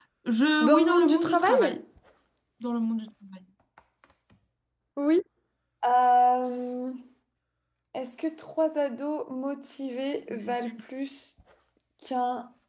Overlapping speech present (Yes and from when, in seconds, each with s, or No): Yes, from 0.6 s